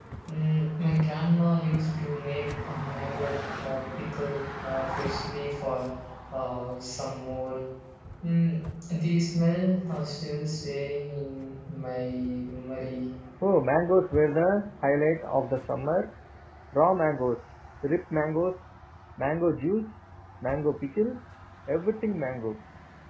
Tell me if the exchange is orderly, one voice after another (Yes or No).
Yes